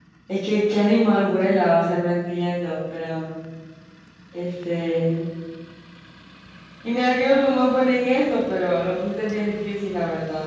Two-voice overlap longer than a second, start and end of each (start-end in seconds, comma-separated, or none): none